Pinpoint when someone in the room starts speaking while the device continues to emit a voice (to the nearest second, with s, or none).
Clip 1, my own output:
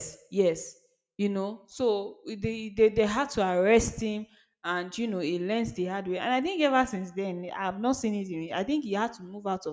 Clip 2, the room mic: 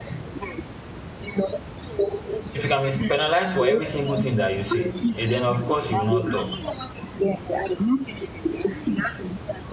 3 s